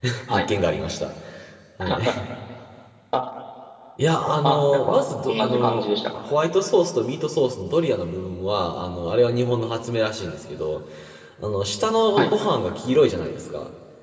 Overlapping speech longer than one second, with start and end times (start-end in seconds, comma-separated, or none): 4.4-6.2